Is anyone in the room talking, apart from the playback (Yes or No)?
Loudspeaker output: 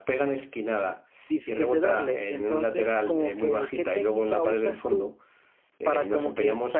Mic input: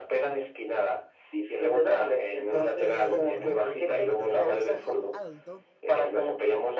Yes